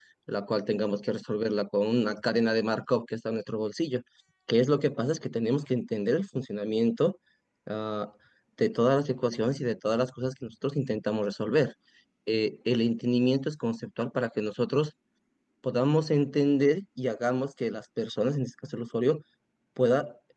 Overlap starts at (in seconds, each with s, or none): none